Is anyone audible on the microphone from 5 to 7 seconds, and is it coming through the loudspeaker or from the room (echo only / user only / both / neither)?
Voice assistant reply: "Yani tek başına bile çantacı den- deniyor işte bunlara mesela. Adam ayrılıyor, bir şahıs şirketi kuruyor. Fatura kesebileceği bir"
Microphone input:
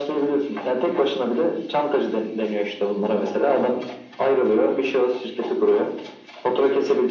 echo only